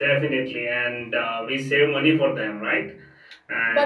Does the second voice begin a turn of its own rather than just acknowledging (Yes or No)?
Yes